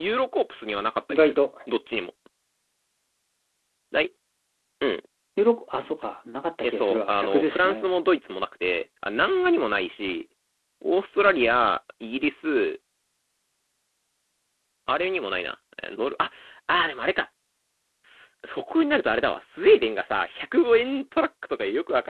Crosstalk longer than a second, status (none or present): present